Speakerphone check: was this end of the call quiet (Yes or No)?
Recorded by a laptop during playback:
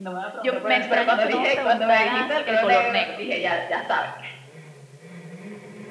No